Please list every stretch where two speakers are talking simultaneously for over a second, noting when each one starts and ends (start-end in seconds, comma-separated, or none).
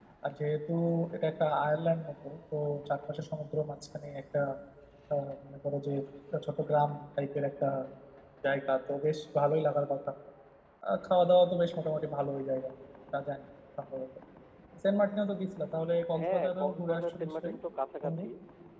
16.2-17.6